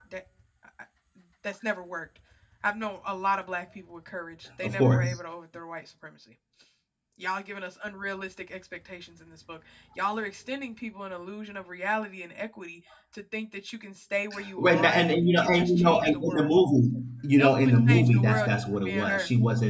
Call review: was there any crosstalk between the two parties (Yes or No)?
Yes